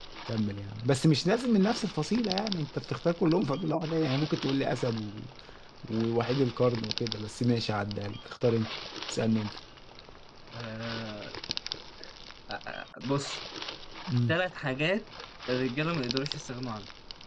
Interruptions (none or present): none